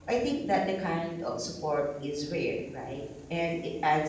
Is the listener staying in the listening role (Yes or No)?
Yes